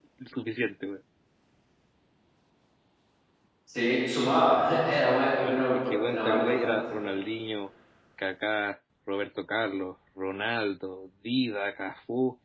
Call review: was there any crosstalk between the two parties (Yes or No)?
Yes